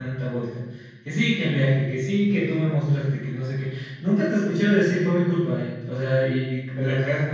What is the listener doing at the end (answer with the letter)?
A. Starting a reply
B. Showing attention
A